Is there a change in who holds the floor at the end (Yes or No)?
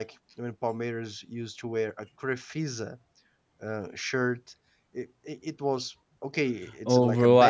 Yes